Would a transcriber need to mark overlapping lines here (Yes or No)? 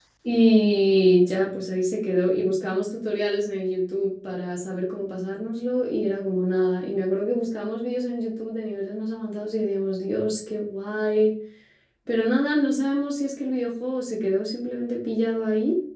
No